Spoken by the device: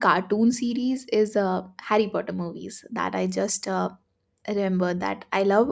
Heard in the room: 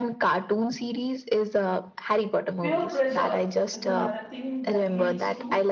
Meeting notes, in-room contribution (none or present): present